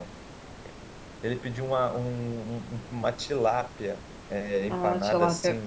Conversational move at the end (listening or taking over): listening